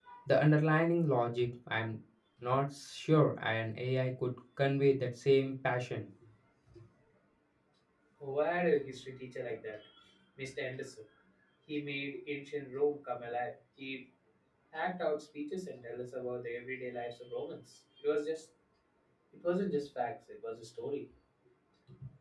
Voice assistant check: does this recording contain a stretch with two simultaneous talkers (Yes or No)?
No